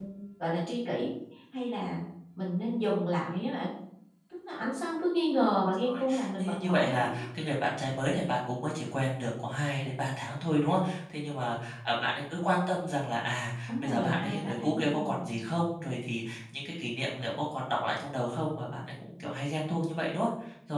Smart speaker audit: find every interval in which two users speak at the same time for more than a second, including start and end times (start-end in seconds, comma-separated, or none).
5.8-7.2, 13.7-15.2